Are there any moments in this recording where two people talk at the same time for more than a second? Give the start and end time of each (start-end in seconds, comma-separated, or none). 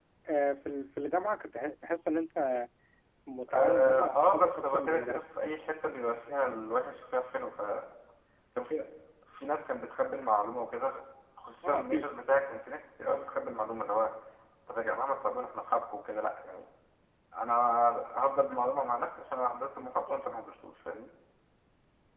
3.5-5.2